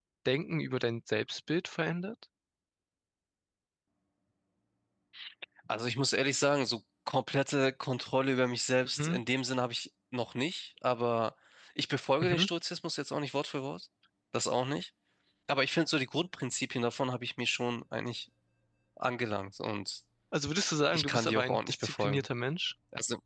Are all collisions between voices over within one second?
No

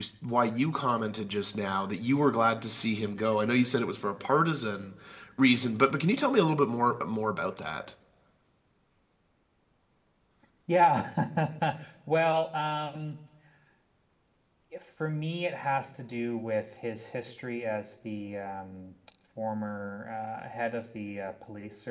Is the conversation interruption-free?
Yes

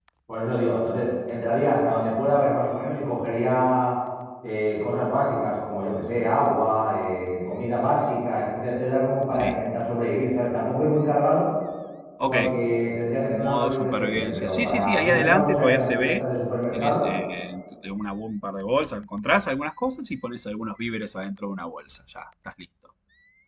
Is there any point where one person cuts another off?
Yes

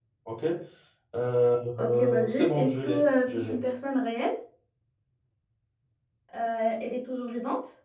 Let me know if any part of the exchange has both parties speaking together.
Yes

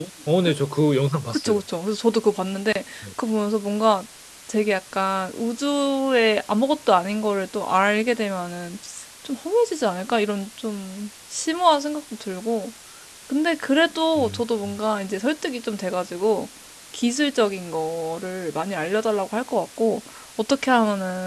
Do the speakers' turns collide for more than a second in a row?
No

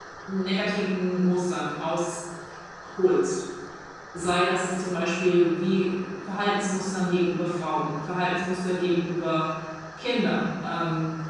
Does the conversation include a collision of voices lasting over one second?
No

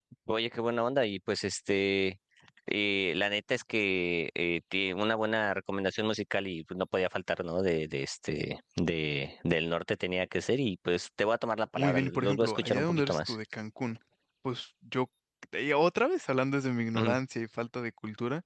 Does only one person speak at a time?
No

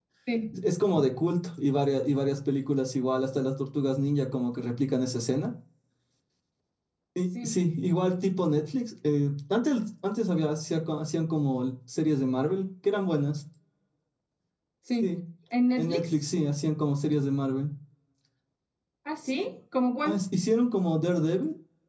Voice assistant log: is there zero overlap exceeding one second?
Yes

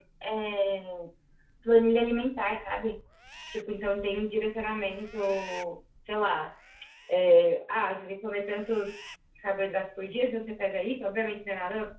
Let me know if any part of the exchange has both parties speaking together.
No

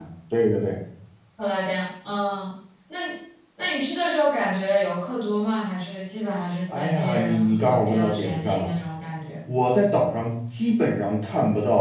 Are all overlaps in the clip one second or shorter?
No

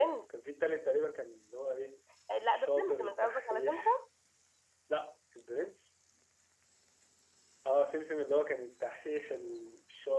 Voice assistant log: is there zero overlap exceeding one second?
No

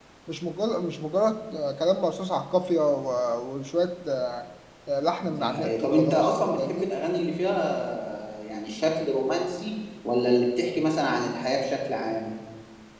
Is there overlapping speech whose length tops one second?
Yes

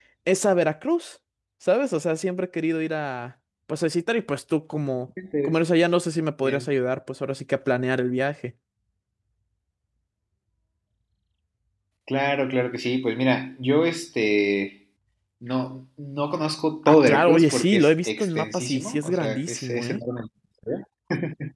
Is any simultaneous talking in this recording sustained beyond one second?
Yes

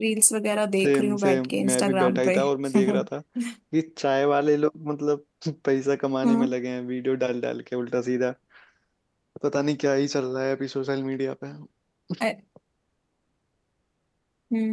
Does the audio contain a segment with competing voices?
Yes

